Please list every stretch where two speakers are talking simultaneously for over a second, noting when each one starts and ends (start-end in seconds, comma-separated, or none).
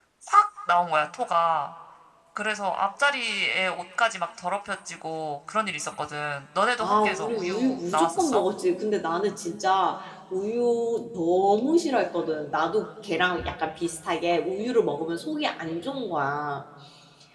6.8-8.4